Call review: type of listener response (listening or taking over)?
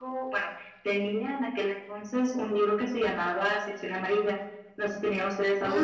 taking over